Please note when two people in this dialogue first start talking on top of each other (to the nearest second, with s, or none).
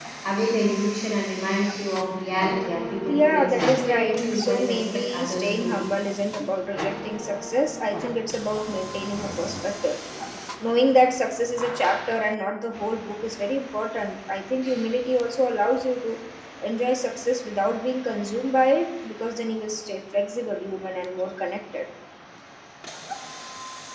3 s